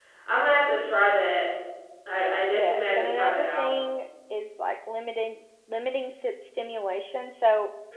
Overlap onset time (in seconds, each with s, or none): 2.5 s